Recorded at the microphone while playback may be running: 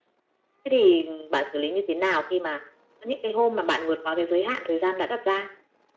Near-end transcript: none

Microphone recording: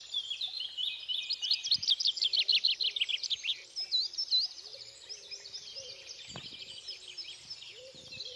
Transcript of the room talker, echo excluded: none

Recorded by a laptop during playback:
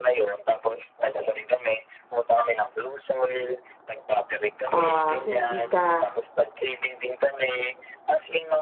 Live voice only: Ah, hindi ka

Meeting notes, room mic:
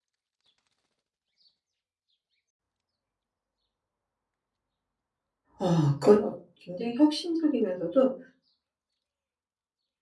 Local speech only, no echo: 어, 그건 어- 굉장히 혁신적이면서도

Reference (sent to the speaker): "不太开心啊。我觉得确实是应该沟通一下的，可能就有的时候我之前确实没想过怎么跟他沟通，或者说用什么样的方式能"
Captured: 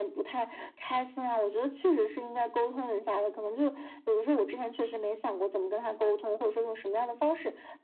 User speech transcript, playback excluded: none

